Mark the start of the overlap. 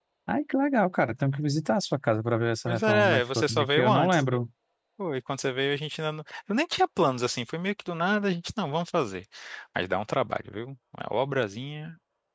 2.7 s

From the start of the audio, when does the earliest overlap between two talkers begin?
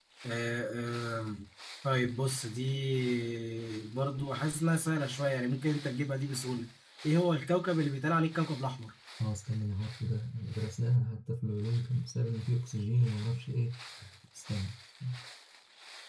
none

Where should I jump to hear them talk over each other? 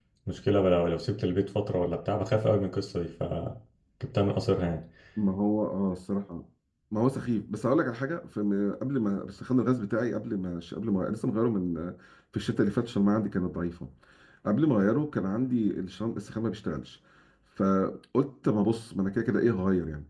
none

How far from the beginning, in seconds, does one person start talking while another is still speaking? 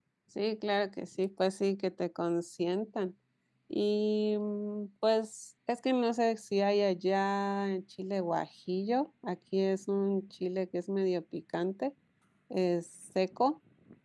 none

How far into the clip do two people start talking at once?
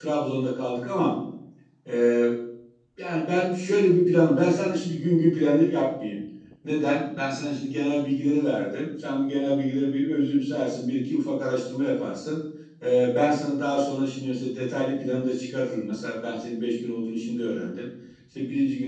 none

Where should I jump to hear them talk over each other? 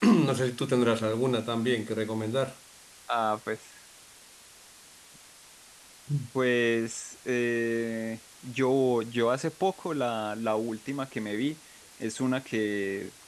none

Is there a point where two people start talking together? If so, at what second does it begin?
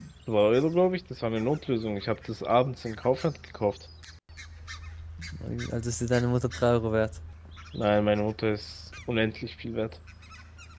none

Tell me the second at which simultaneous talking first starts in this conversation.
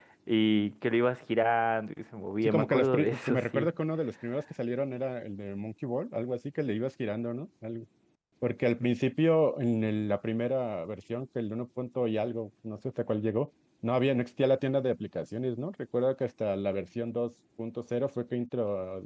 2.4 s

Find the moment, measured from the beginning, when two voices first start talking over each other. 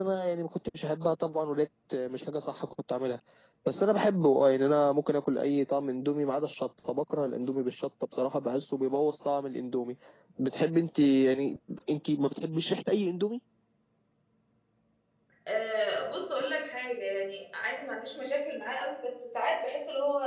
none

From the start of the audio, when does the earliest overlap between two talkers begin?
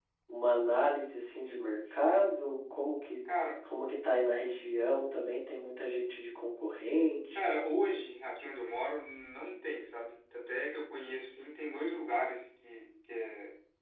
none

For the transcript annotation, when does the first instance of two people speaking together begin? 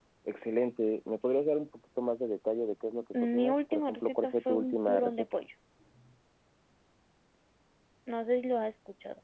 3.1 s

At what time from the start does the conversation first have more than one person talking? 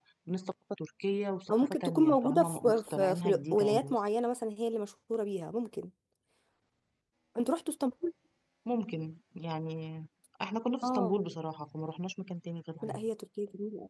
1.5 s

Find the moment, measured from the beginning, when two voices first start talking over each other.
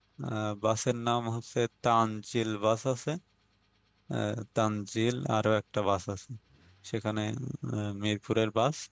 none

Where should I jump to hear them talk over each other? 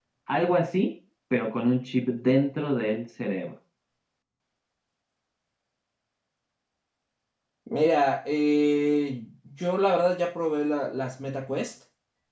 none

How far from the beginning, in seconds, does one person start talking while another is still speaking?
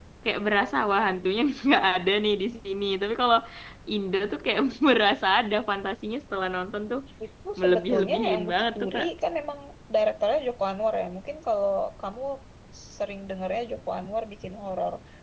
7.6 s

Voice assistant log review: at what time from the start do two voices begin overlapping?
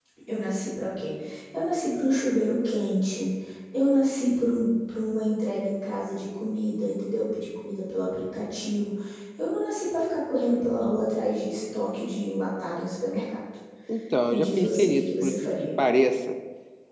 14.3 s

